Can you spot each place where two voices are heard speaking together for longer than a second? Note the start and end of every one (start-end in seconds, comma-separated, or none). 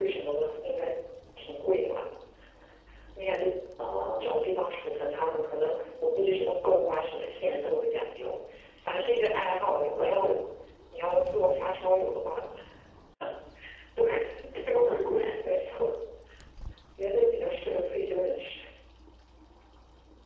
none